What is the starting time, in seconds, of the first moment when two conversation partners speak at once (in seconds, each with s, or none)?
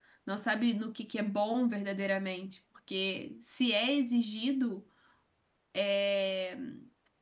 none